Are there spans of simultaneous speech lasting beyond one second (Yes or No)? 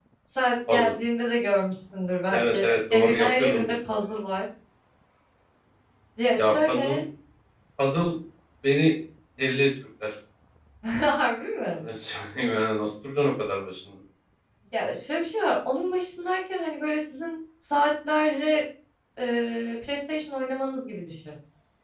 Yes